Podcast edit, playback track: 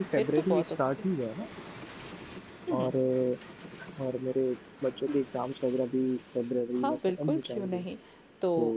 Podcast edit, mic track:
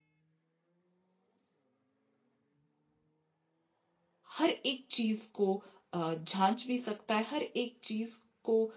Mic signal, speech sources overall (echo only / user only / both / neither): user only